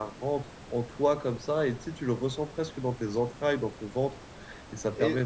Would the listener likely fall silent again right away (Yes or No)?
Yes